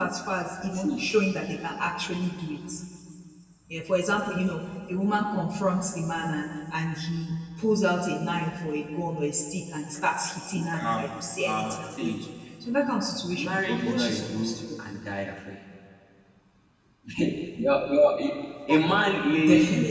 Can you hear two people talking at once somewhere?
Yes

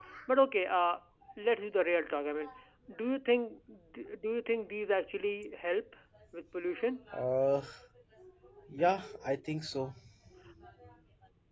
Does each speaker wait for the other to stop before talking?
Yes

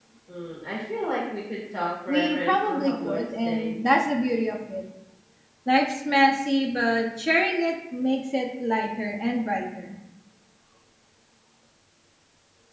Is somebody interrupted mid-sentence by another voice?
Yes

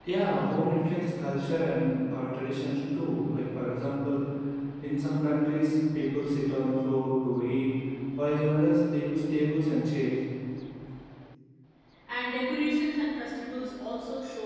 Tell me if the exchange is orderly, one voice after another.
Yes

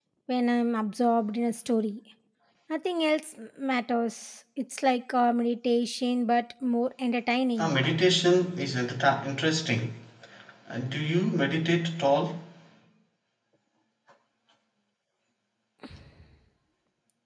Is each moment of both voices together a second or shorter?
Yes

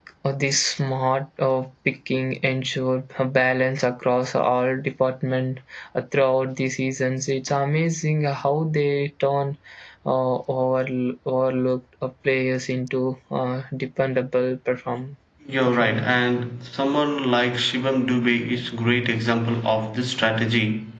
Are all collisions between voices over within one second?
Yes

